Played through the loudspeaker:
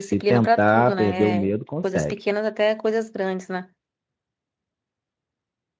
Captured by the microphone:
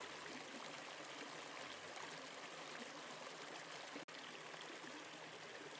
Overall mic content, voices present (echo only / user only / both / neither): neither